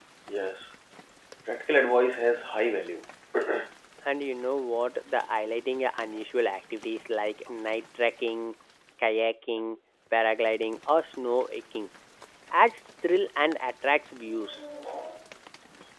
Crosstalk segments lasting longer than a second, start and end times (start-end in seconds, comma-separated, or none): none